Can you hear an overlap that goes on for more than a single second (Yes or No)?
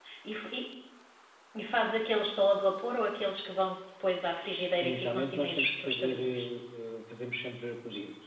Yes